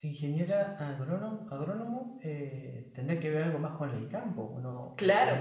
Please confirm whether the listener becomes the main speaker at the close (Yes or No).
Yes